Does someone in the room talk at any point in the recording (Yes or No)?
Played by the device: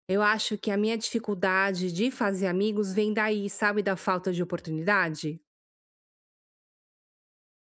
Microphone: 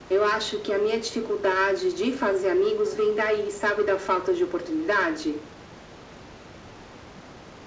No